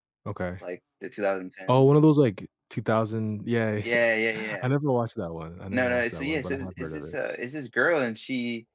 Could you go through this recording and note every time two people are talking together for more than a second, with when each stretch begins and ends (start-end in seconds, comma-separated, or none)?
5.7-7.2